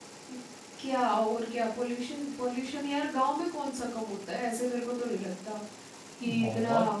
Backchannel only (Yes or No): No